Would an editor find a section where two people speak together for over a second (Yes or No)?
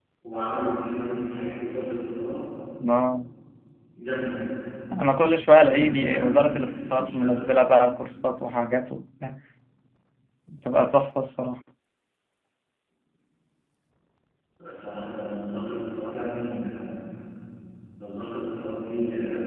Yes